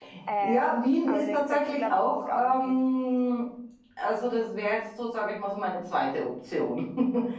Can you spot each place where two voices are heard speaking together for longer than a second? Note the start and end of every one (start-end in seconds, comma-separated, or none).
1.1-2.8